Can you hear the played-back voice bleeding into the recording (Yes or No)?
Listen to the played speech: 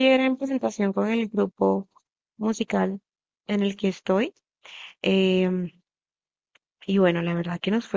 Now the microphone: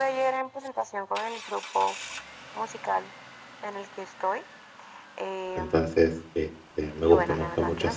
Yes